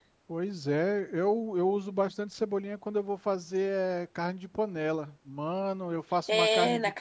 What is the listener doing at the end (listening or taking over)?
taking over